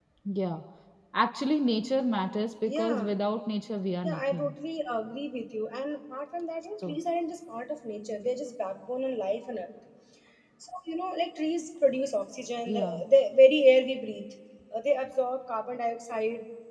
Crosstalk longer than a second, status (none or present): none